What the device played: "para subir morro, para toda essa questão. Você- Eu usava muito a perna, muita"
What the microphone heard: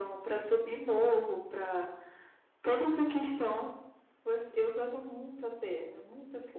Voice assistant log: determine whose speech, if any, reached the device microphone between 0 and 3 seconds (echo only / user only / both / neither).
echo only